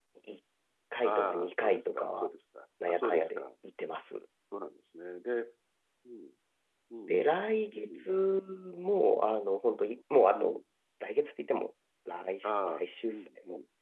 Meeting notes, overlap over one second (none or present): present